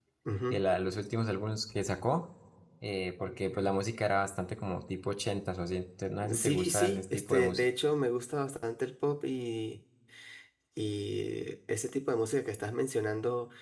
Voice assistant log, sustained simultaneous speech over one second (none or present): present